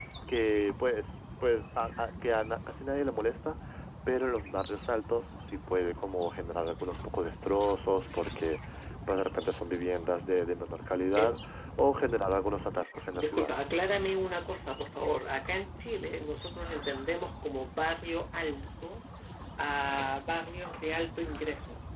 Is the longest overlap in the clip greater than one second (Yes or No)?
No